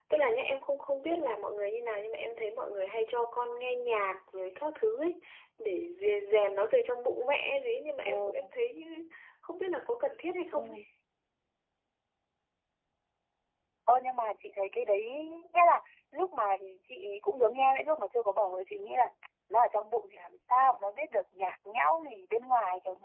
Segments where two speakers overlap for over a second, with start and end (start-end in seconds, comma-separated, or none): none